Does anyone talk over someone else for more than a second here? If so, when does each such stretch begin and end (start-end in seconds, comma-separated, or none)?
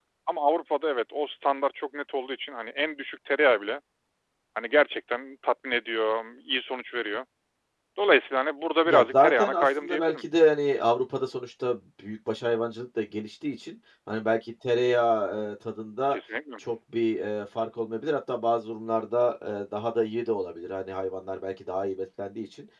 8.8-10.2